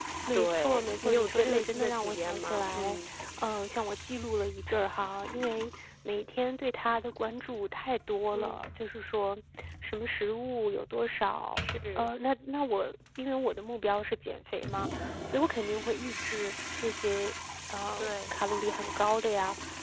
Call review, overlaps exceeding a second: present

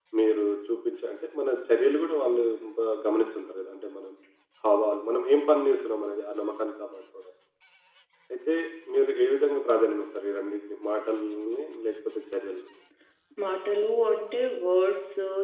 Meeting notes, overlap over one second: none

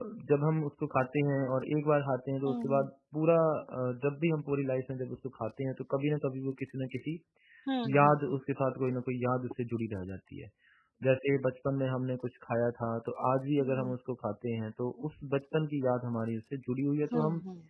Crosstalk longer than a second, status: none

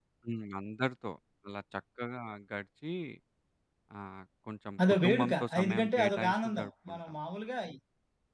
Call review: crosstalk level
present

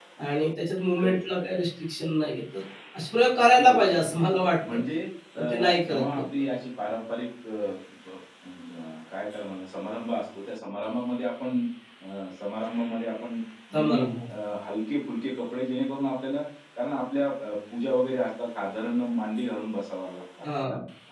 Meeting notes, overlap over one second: present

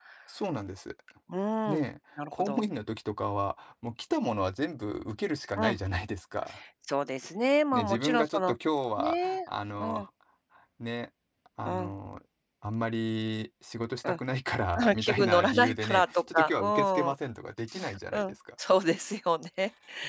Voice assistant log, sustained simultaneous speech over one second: present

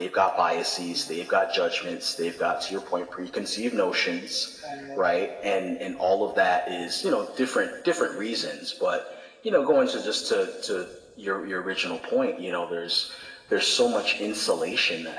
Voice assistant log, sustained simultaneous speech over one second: none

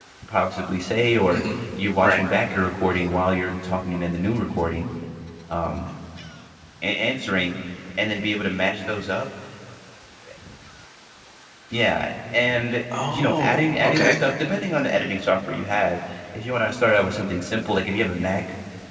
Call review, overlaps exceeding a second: present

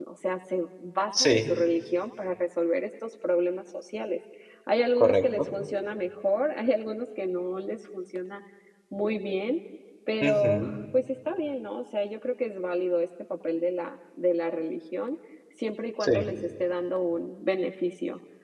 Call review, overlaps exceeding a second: none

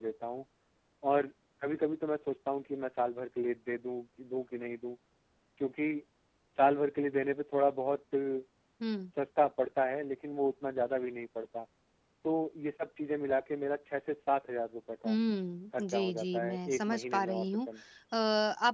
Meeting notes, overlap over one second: present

